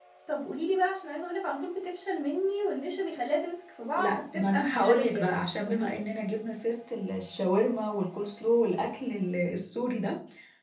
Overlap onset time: 4.0 s

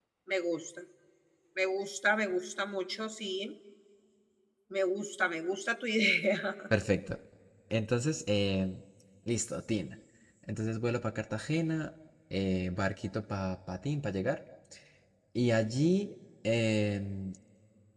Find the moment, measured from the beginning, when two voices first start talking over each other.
none

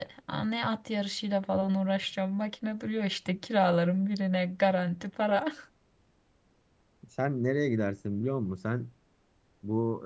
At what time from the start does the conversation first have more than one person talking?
none

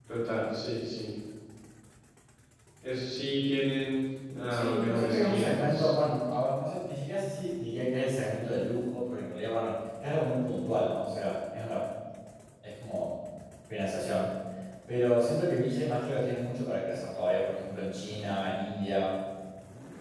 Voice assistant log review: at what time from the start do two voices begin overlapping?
4.5 s

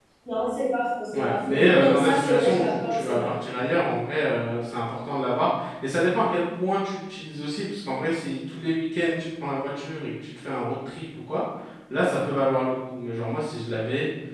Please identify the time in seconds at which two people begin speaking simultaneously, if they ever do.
1.1 s

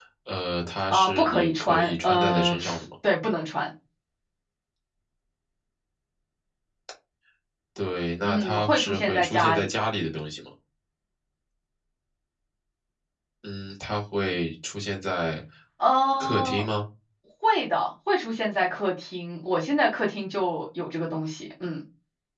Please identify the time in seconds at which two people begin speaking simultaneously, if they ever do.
0.9 s

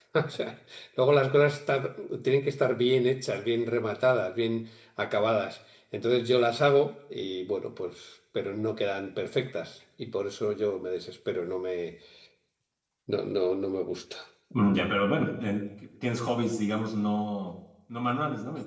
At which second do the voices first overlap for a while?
none

